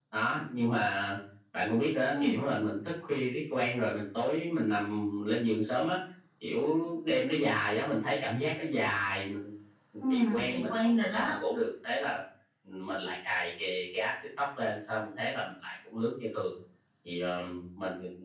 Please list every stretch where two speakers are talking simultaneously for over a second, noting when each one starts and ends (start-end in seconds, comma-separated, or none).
10.0-11.3